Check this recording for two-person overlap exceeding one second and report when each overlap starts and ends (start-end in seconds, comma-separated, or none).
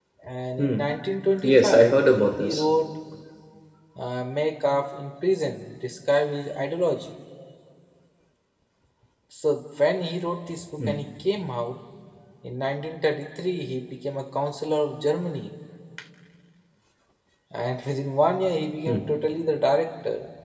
1.4-2.6